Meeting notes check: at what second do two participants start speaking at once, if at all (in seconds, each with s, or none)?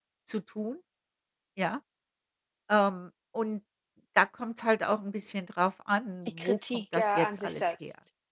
6.2 s